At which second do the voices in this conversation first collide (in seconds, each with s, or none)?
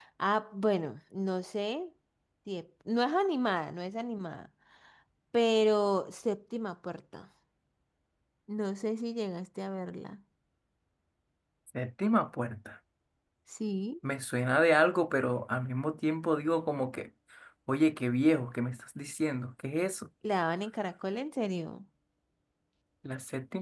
none